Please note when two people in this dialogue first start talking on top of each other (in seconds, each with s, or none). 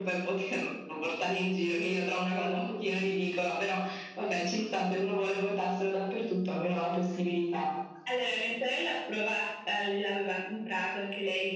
none